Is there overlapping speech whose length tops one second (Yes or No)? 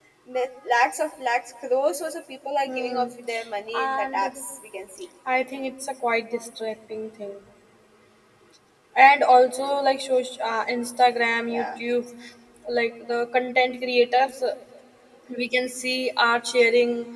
No